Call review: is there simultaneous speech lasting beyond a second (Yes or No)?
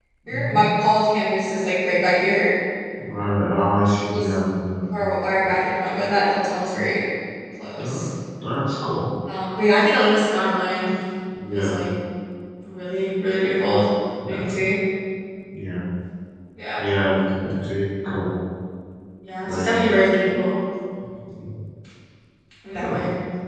No